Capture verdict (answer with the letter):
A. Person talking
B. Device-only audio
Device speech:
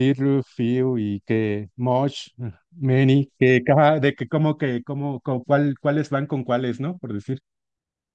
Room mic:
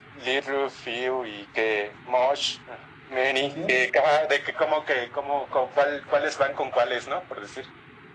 A